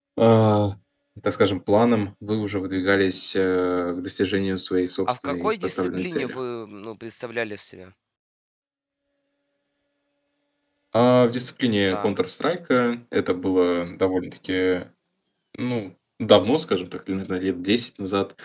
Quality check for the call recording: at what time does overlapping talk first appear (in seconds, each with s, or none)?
5.1 s